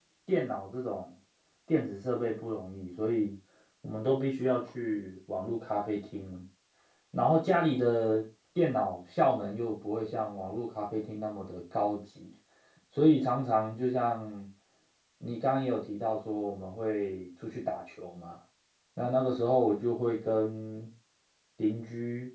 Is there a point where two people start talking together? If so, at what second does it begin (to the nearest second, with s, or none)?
none